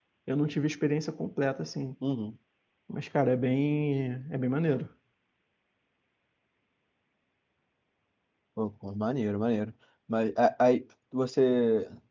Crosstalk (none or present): none